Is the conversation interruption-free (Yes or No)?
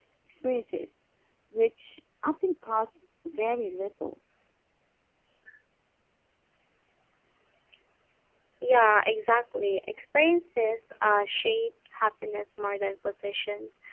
Yes